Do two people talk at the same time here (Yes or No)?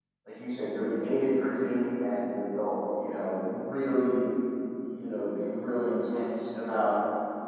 No